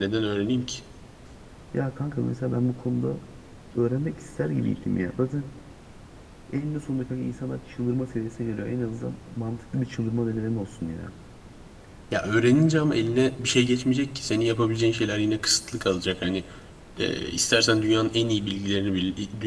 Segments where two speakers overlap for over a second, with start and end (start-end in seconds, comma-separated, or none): none